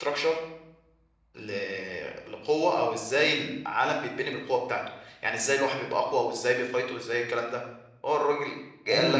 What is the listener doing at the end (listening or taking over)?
taking over